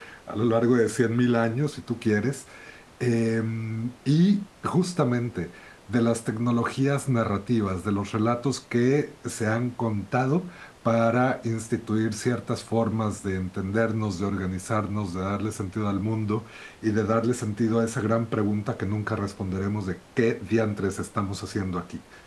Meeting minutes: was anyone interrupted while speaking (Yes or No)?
No